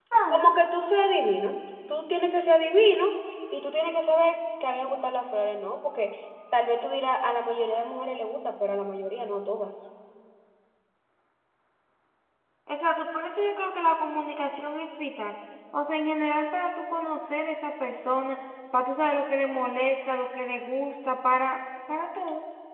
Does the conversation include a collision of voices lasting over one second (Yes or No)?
No